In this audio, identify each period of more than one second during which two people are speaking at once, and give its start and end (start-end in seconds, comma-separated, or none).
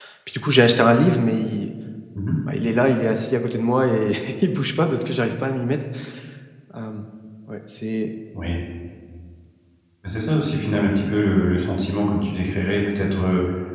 none